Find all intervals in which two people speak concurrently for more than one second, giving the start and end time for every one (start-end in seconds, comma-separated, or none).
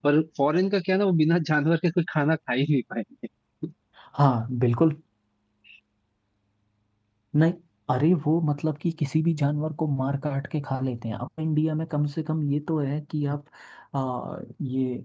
none